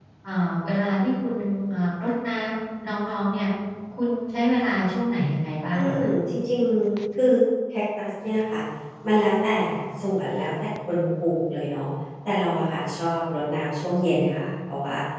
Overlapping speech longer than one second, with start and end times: none

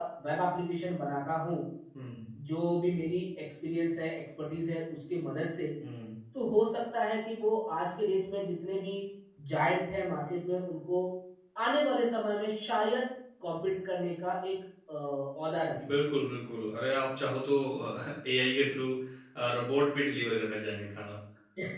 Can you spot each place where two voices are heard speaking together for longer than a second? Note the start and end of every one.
none

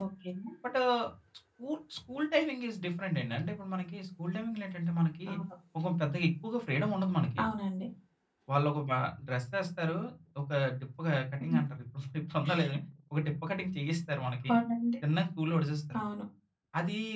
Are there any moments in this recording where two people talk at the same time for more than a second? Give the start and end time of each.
none

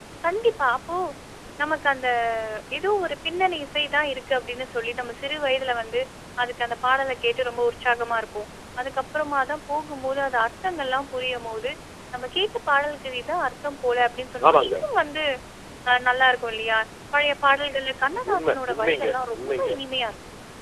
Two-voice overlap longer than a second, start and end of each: 18.3-19.8

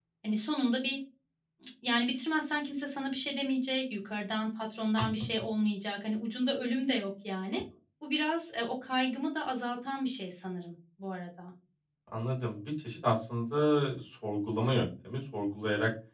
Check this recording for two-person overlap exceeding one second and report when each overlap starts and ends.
none

